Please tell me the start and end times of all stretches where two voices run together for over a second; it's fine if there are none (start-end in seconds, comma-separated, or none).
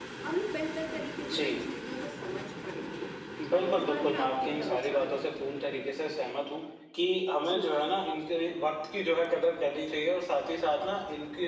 3.6-5.3